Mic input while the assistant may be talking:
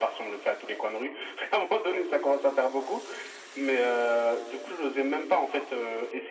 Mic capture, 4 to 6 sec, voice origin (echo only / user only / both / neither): echo only